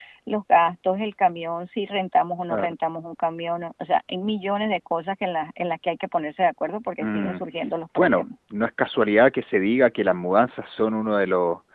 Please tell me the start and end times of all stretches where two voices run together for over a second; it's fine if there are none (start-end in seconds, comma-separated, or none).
none